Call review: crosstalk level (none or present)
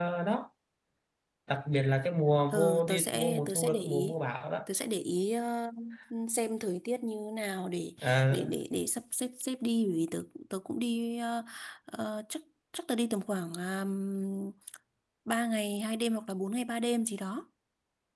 present